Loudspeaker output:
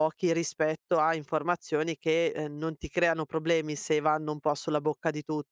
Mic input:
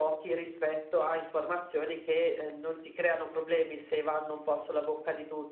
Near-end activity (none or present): none